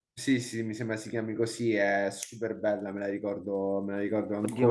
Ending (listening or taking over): taking over